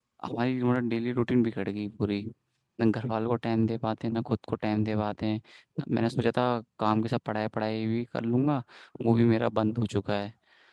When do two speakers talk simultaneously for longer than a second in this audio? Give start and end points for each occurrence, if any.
none

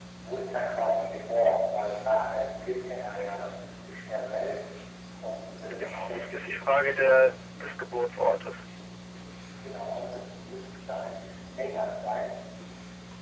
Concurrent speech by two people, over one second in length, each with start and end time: 5.8-7.2

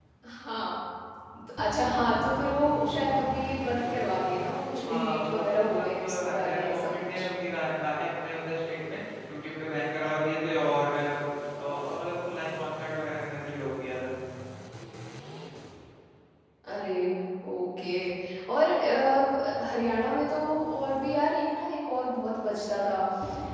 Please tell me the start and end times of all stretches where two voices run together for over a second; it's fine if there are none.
4.9-7.3

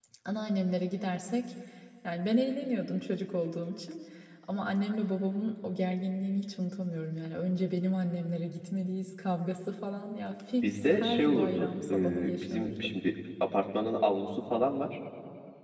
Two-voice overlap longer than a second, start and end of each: 10.6-12.9

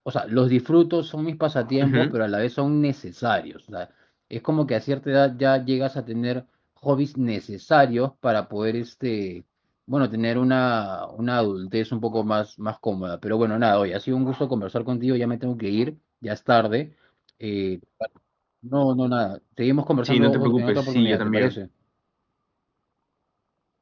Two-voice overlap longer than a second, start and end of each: 20.0-21.6

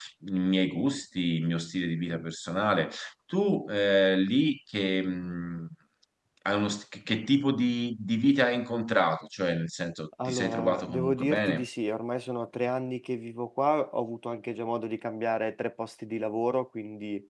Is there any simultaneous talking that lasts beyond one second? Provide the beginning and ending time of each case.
10.2-11.7

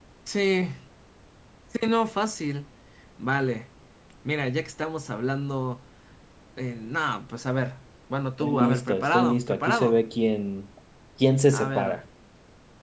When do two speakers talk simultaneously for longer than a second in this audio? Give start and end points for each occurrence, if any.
8.4-9.9

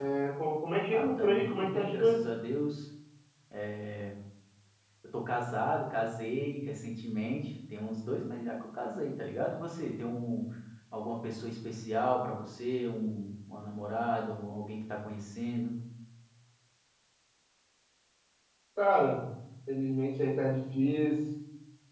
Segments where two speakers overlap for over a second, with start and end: 0.9-2.2

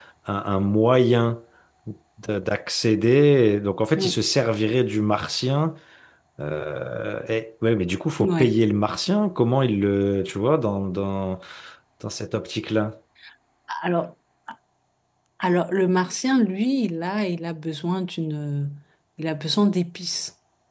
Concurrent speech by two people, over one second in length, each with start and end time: none

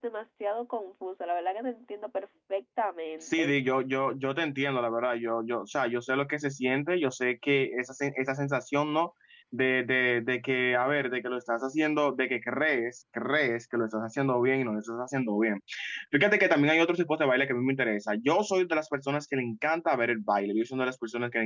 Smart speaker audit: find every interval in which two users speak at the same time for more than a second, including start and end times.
none

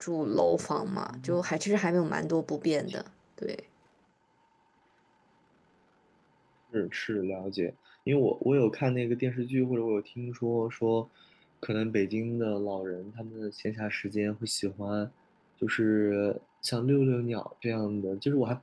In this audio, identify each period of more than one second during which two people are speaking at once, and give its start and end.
none

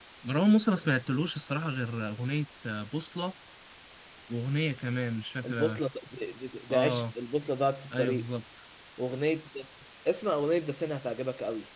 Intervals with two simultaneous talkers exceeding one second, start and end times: none

